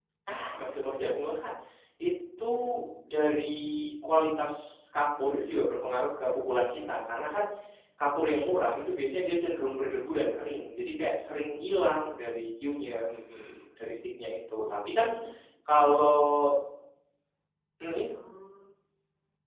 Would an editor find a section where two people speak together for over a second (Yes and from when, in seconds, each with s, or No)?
No